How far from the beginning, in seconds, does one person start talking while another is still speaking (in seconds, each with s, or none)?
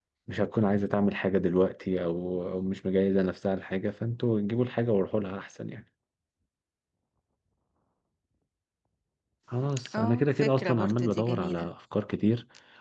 10.0 s